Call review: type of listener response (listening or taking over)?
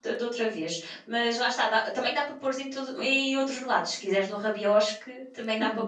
taking over